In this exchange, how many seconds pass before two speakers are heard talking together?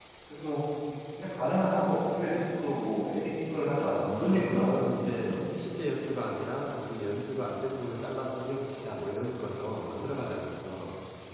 3.8 s

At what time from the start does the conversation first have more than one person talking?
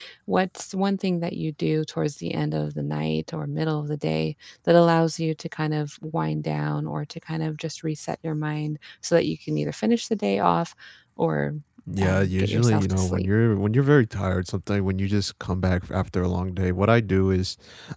12.0 s

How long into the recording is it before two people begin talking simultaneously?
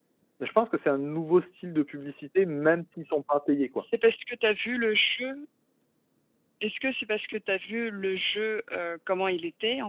none

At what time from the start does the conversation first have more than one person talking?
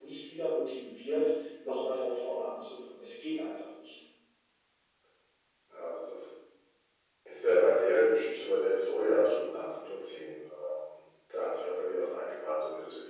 none

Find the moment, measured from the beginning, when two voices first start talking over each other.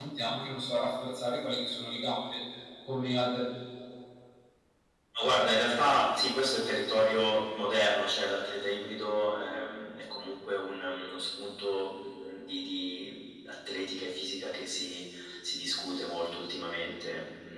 none

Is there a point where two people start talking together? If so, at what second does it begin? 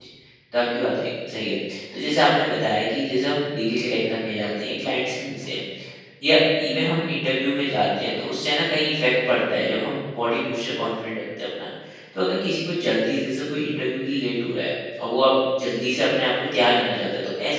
none

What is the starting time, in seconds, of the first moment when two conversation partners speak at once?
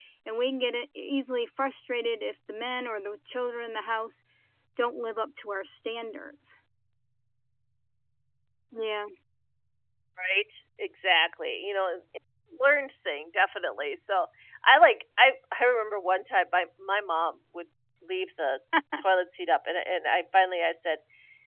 none

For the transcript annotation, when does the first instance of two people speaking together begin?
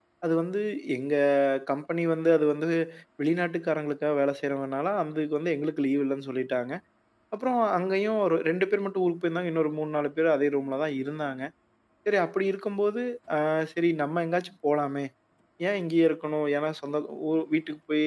none

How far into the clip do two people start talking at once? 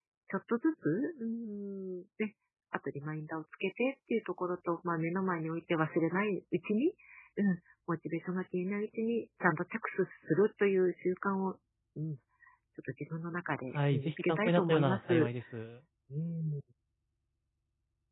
13.7 s

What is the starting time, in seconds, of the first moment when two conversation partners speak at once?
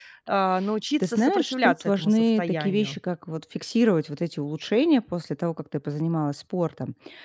1.0 s

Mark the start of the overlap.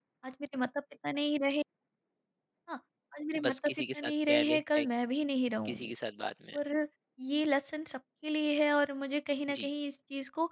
3.4 s

